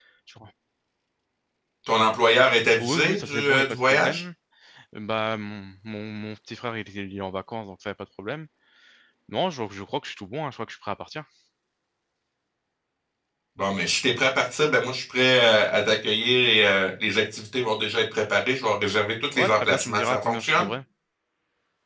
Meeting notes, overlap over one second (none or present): present